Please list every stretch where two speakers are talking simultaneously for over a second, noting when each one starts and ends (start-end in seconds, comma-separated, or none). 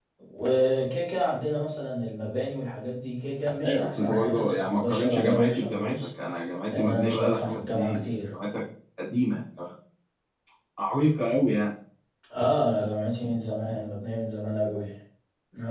3.6-6.1, 6.7-8.3